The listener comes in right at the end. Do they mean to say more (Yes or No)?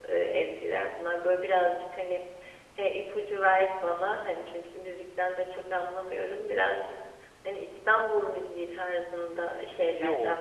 Yes